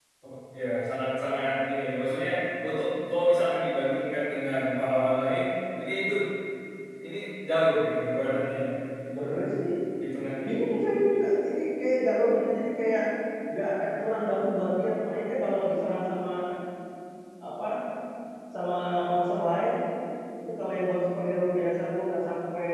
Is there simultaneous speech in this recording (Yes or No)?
No